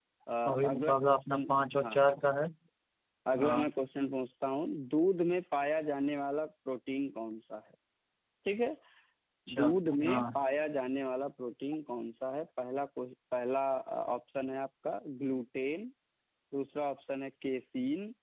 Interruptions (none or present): present